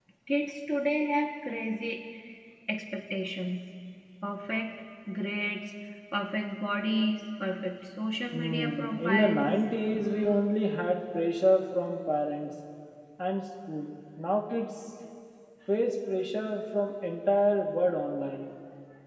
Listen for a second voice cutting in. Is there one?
Yes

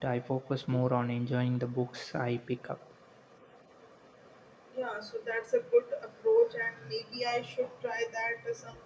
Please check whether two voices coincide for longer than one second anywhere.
No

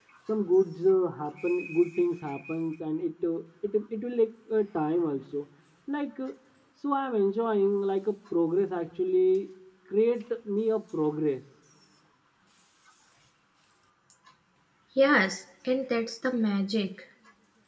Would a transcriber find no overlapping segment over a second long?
Yes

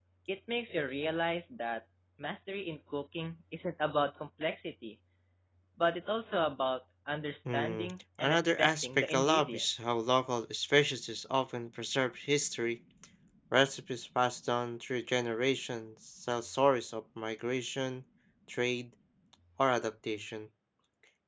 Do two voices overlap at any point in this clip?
Yes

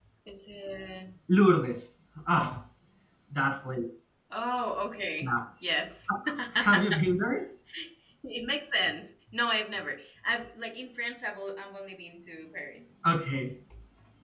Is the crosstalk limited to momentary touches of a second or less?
Yes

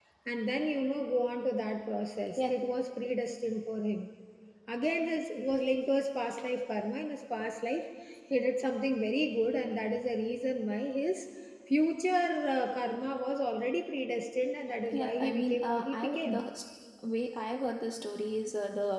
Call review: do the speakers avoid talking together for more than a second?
No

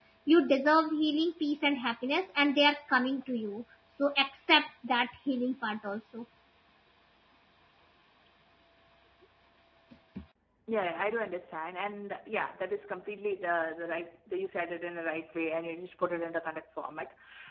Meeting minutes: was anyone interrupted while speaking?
No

